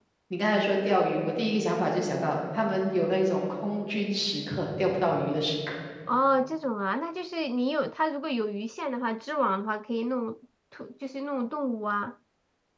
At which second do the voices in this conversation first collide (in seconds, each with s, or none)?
none